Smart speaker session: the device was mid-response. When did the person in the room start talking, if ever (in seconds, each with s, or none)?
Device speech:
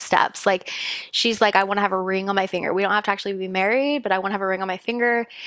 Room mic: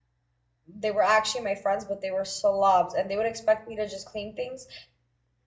0.8 s